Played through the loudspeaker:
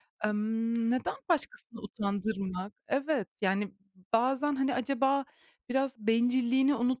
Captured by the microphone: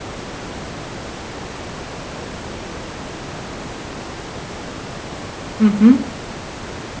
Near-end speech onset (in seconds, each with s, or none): 5.6 s